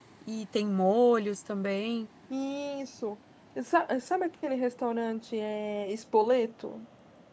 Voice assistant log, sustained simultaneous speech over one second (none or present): none